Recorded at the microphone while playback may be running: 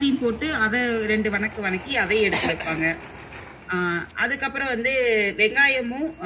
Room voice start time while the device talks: none

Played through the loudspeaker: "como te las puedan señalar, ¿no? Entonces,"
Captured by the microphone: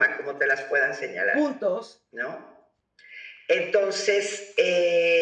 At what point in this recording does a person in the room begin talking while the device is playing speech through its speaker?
1.3 s

